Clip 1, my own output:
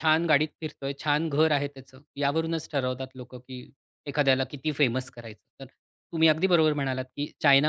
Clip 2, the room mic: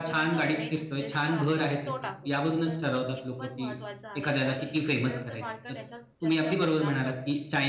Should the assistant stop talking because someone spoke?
Yes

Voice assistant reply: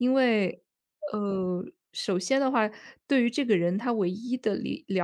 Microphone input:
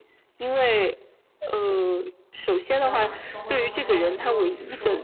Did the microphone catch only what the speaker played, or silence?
No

